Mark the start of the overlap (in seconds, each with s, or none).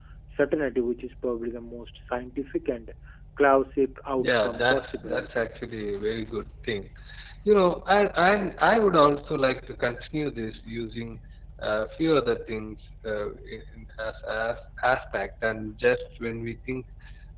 4.2 s